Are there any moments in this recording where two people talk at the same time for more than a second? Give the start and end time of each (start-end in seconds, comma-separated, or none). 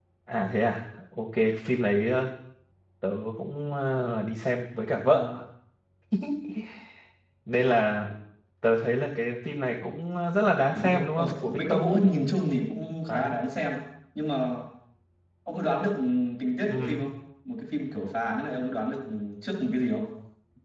10.8-12.1